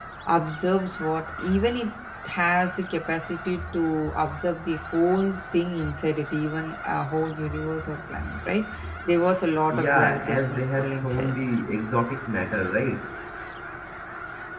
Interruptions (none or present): present